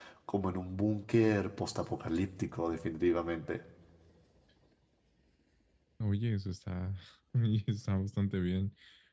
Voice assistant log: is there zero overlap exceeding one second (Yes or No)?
Yes